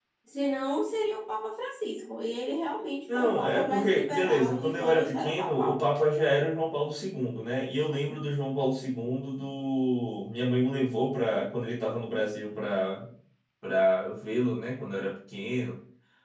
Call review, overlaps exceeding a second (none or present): present